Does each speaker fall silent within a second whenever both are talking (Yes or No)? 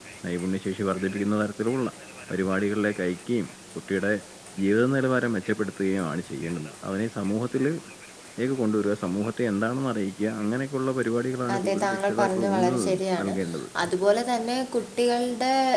No